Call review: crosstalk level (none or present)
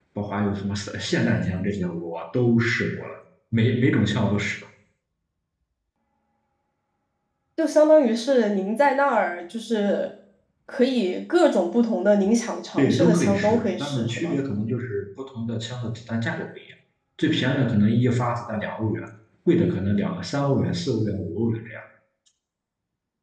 present